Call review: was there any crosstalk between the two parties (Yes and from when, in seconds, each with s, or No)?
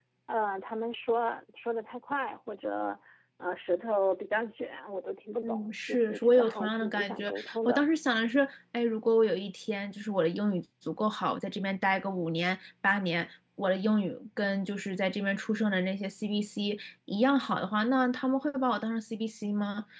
Yes, from 5.4 s